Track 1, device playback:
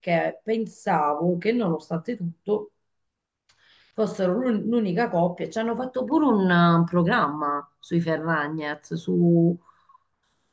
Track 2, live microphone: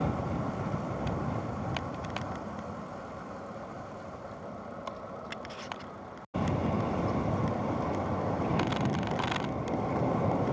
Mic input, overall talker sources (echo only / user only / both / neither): neither